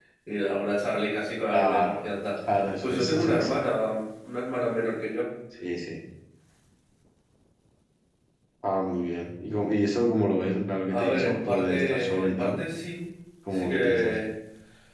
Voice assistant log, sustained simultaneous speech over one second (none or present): present